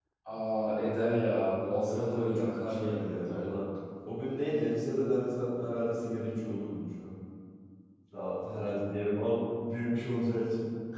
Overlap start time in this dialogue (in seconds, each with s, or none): 1.9 s